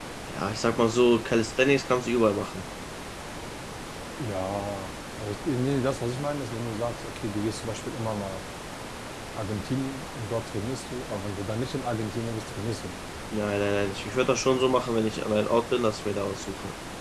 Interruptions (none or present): none